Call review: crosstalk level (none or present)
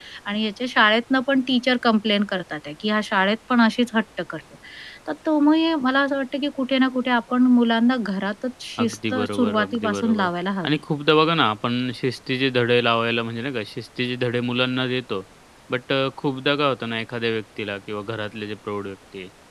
present